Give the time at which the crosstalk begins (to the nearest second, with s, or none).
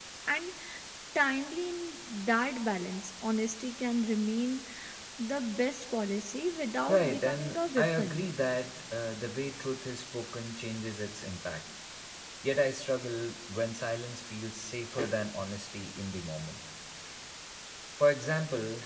7 s